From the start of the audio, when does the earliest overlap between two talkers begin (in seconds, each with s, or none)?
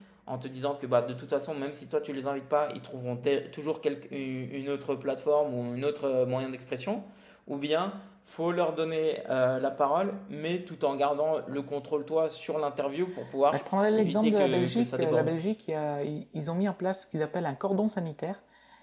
13.5 s